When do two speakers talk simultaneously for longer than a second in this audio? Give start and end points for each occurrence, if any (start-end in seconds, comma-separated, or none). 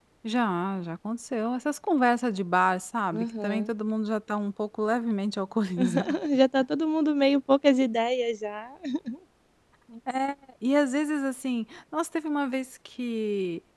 none